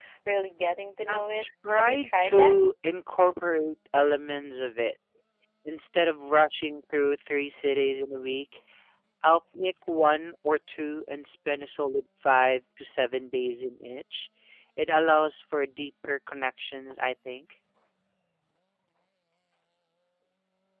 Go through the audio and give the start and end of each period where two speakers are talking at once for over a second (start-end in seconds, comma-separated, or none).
1.1-2.5